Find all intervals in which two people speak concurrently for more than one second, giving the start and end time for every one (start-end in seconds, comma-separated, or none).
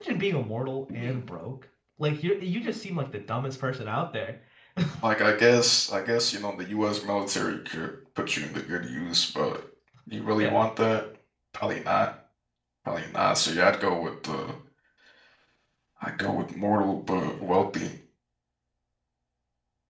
none